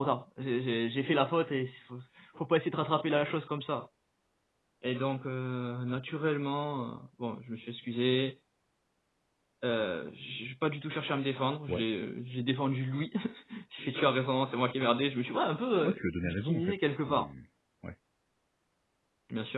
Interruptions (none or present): present